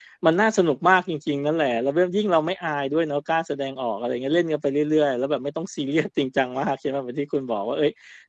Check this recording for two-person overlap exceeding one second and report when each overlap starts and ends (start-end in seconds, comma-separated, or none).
none